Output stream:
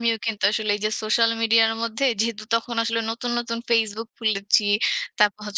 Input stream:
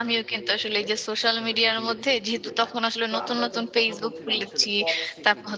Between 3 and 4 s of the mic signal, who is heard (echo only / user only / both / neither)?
both